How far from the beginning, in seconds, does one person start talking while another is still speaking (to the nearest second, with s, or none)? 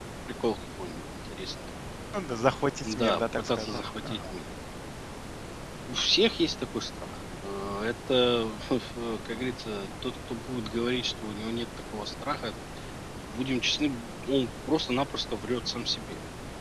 3 s